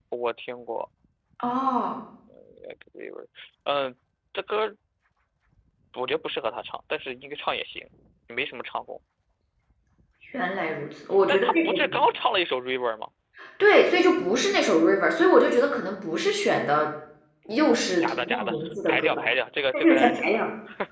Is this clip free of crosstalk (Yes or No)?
No